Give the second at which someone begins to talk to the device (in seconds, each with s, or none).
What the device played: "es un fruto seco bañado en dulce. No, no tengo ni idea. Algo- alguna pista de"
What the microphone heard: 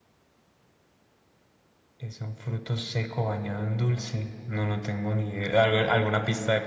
none